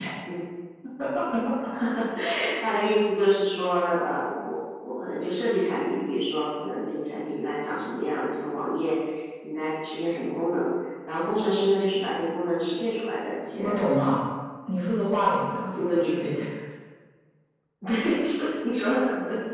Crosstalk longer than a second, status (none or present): none